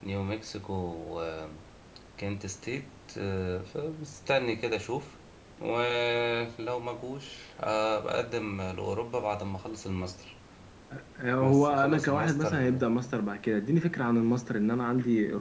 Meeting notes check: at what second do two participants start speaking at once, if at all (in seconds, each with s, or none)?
11.4 s